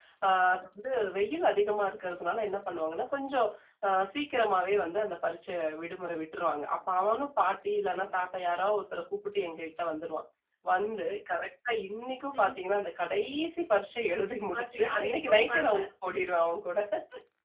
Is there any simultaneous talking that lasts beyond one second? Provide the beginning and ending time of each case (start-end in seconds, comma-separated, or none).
14.5-15.8